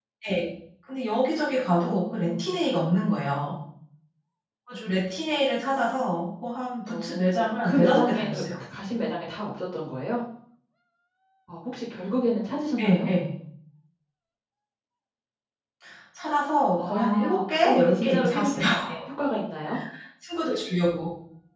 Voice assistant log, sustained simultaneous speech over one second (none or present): present